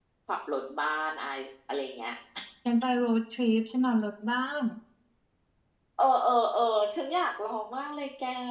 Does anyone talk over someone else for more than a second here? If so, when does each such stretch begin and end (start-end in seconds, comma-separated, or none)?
none